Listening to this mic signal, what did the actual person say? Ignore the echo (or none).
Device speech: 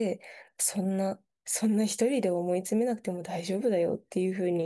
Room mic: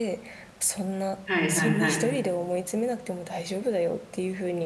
はいはいはい。